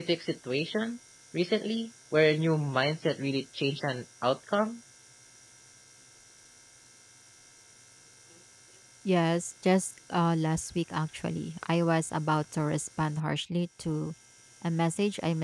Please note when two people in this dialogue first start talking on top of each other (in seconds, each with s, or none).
none